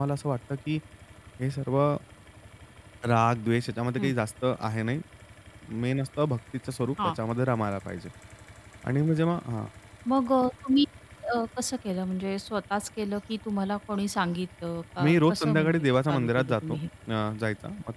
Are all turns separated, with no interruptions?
No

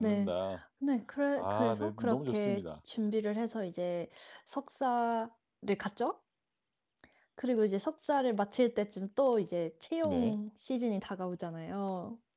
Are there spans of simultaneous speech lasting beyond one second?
Yes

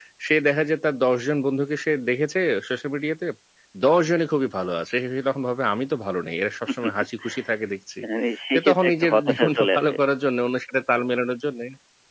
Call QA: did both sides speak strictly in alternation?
No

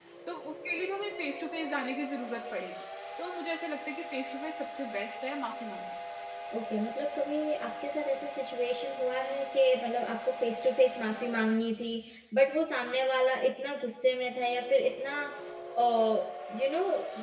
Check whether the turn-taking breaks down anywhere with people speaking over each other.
No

